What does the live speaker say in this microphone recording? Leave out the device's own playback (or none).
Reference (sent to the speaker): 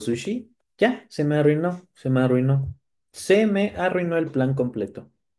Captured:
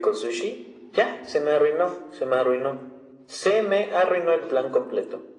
none